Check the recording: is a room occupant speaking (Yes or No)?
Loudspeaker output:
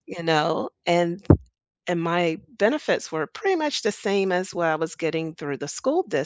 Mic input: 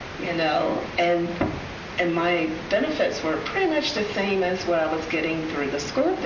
No